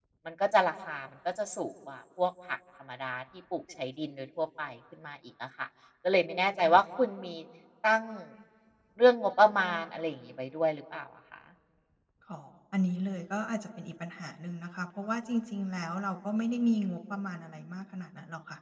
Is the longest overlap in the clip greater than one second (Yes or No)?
No